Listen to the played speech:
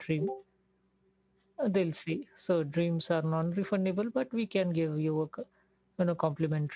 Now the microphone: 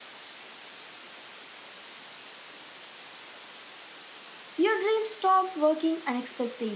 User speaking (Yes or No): Yes